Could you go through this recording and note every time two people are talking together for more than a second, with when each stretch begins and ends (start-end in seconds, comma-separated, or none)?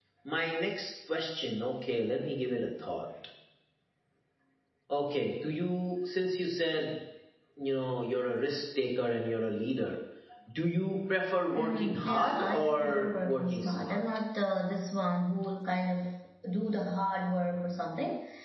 11.5-14.0